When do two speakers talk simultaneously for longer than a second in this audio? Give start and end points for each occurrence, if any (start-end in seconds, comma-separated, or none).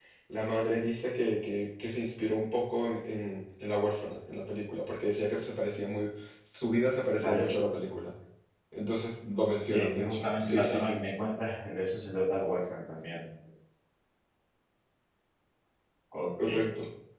9.7-11.0